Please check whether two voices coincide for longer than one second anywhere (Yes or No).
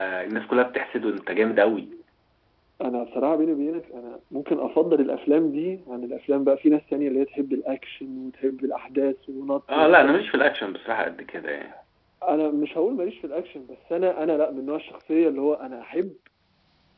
No